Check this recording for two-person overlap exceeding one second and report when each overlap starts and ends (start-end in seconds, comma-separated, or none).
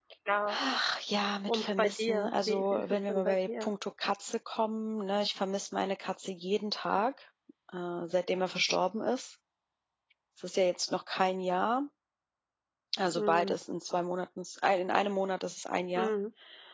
1.5-3.7